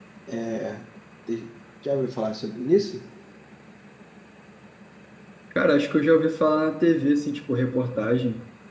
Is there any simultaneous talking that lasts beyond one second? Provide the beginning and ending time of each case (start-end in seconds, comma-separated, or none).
none